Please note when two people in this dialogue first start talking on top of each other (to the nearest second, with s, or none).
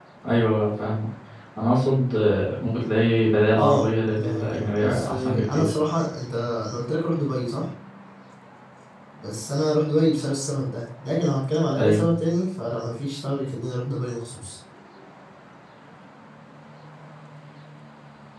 4 s